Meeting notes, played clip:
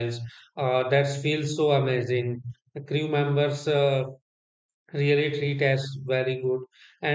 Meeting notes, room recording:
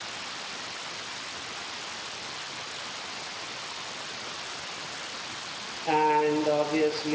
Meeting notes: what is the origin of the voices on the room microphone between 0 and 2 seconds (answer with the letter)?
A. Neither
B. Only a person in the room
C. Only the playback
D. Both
A